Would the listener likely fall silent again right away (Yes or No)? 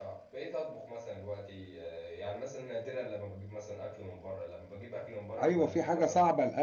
No